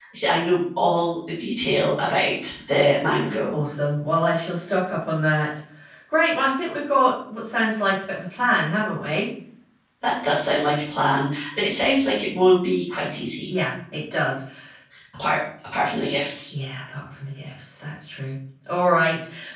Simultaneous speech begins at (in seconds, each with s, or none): none